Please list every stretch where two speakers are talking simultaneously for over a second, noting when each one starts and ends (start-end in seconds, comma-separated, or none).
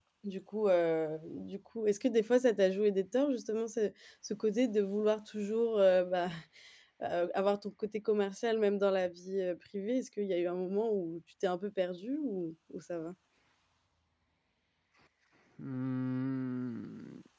none